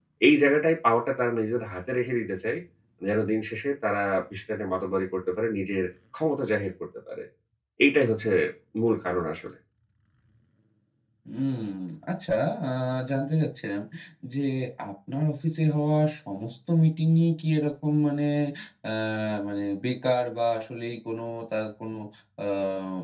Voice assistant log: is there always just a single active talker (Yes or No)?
Yes